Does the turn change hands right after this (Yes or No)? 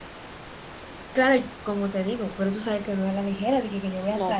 Yes